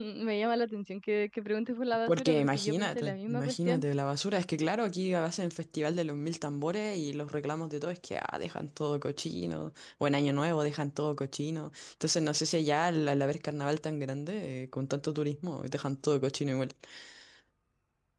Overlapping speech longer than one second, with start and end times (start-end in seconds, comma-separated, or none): 2.1-3.8